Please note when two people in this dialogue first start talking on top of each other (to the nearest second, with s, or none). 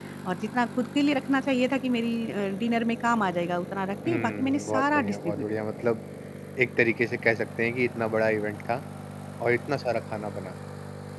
4 s